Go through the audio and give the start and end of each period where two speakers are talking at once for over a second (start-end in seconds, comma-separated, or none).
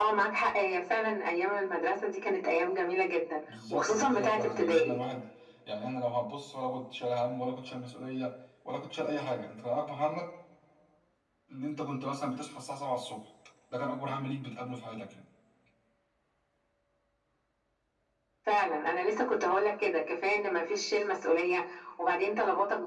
3.7-5.0